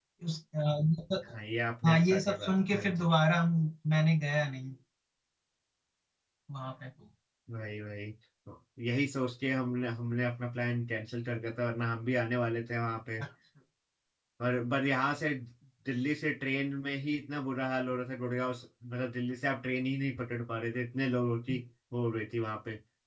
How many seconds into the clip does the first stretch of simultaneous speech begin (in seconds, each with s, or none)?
1.8 s